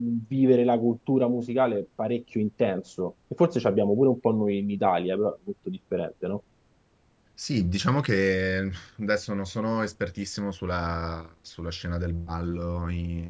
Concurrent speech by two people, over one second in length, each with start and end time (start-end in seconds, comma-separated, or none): none